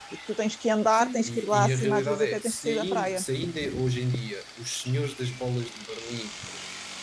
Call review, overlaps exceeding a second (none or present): present